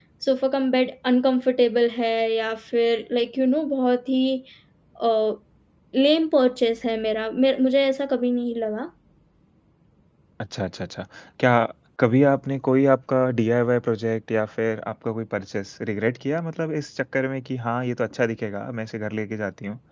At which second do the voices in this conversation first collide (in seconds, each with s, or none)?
none